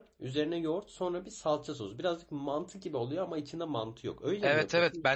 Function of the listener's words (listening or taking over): taking over